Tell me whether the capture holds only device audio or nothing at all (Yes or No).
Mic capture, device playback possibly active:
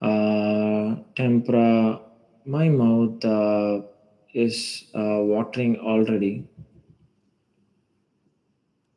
Yes